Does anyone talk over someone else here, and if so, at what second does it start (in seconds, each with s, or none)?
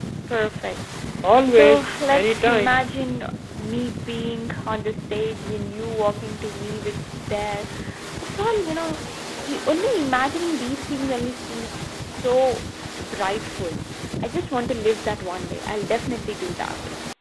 1.5 s